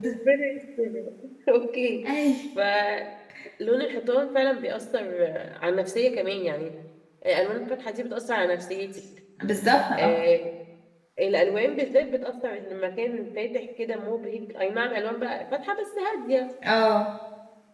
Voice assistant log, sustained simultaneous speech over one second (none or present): none